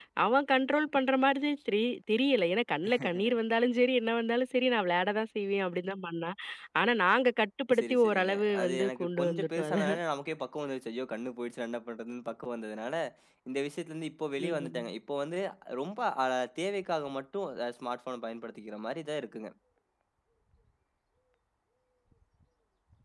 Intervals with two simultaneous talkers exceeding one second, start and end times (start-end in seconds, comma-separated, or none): 7.8-10.0